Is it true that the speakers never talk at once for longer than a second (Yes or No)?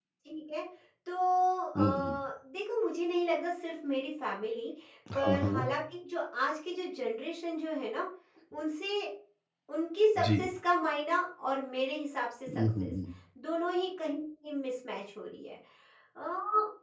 Yes